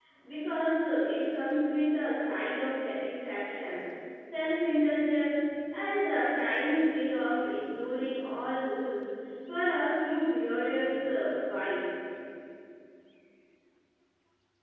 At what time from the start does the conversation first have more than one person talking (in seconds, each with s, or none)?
none